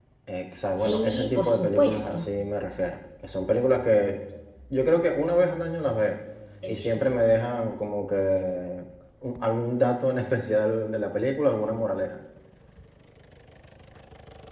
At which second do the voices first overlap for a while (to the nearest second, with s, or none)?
1 s